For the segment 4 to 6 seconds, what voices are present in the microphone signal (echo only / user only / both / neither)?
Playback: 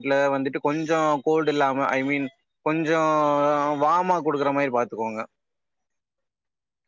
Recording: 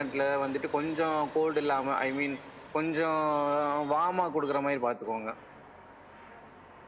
echo only